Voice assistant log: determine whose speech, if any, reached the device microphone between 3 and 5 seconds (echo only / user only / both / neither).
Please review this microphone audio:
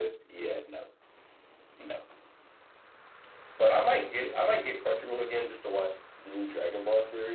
echo only